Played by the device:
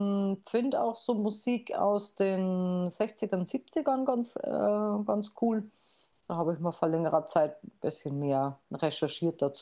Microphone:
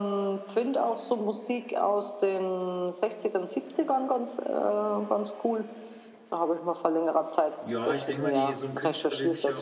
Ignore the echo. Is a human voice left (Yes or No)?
Yes